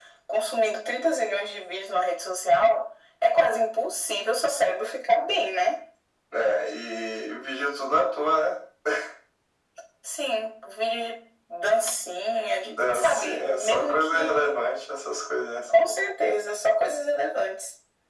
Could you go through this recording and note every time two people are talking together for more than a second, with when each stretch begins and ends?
12.6-14.6

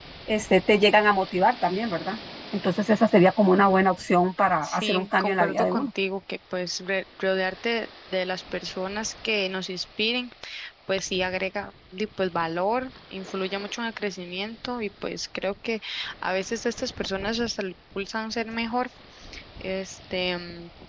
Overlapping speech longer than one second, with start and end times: 4.6-5.9

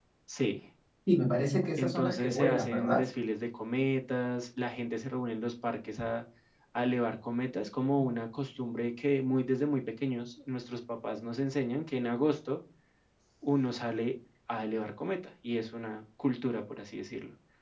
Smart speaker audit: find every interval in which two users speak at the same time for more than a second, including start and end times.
1.8-3.0

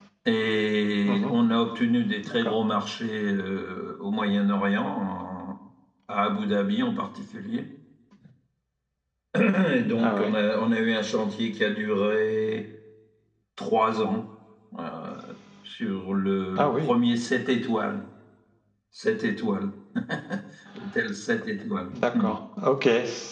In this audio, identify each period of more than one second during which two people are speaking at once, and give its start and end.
none

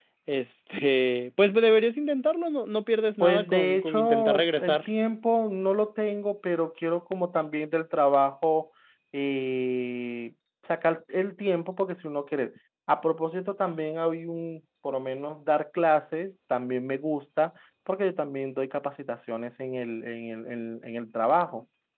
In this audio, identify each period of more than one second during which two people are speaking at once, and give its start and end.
3.2-4.8

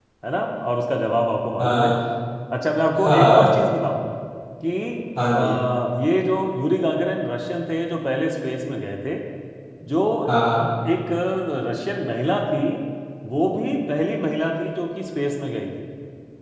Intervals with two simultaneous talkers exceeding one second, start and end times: none

